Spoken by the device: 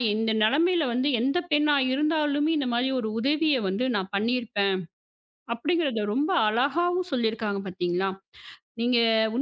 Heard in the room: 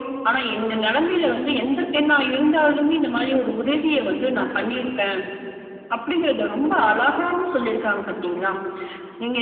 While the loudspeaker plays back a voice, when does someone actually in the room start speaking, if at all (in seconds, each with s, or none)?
none